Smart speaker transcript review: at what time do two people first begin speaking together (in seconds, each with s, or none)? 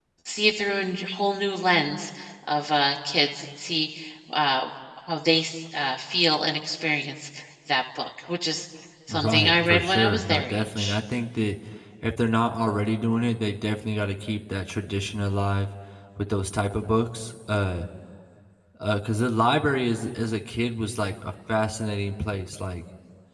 9.1 s